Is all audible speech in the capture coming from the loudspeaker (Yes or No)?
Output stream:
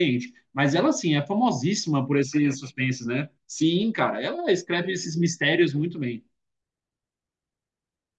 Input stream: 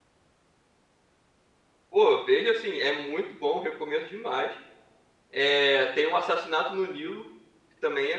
No